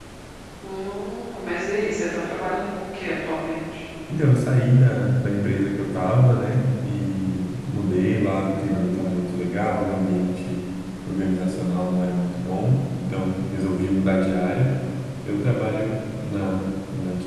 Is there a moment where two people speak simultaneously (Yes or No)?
No